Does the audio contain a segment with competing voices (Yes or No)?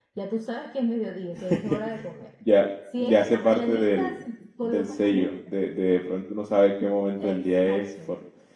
Yes